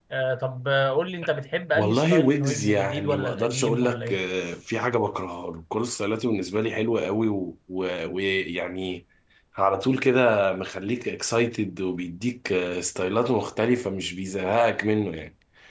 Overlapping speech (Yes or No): Yes